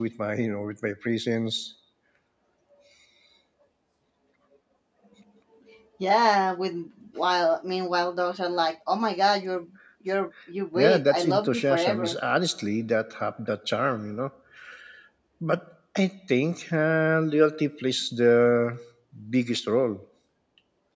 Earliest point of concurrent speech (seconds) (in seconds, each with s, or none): 10.8 s